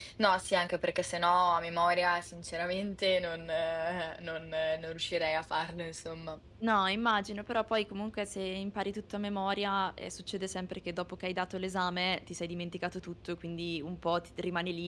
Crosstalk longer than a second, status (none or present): none